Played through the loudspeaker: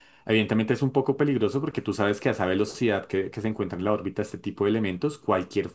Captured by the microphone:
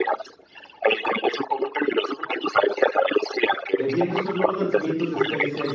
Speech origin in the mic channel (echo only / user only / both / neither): both